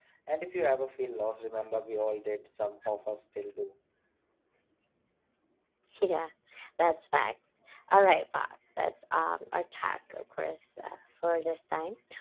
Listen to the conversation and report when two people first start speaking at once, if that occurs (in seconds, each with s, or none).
none